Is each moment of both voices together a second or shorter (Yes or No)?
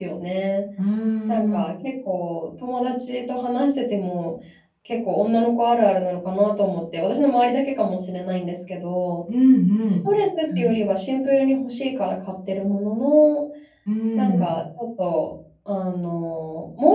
Yes